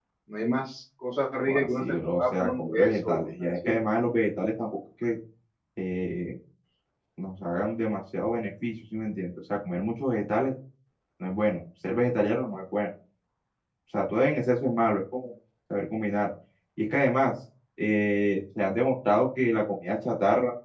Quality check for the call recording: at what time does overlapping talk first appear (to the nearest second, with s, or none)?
1 s